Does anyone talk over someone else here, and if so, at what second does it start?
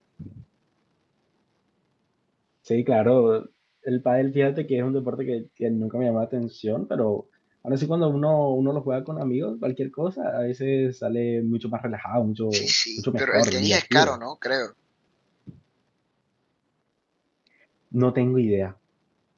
13 s

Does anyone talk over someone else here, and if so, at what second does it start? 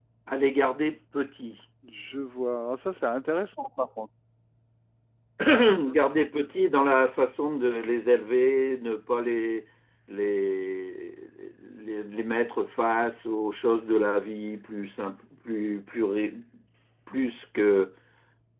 none

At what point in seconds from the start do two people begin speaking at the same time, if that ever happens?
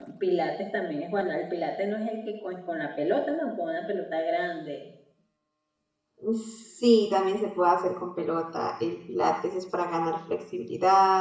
none

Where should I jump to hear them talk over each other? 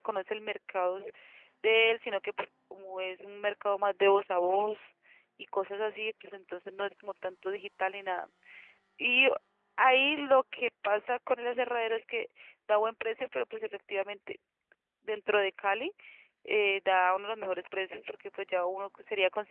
none

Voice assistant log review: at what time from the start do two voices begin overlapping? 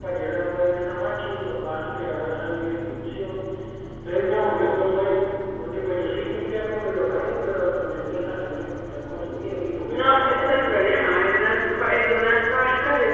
10 s

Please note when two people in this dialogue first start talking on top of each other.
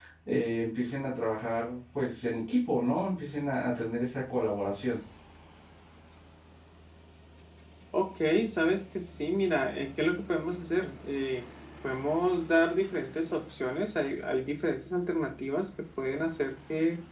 none

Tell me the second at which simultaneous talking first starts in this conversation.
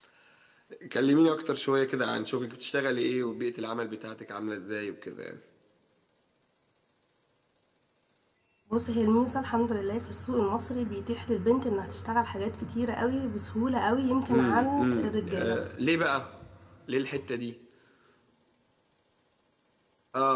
14 s

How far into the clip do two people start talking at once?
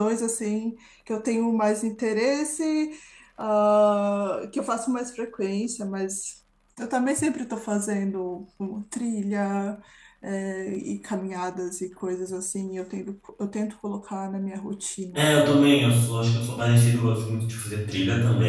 none

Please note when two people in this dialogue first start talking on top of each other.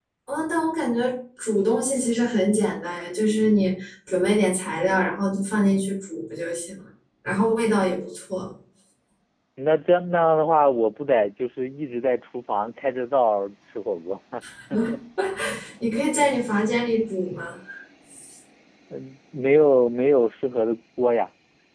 none

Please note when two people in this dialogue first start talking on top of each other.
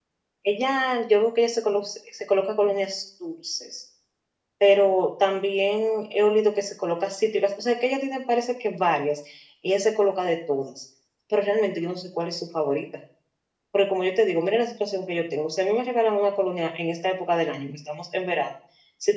none

